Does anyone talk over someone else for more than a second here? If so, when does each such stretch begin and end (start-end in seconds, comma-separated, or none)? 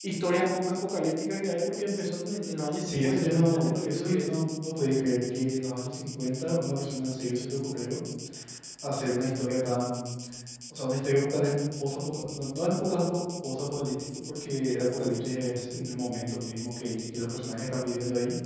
2.8-4.3